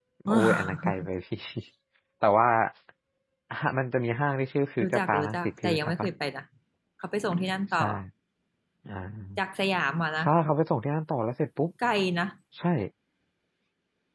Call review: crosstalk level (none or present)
present